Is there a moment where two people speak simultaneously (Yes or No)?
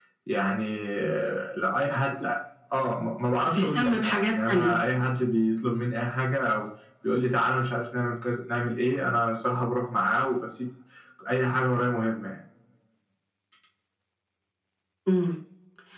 Yes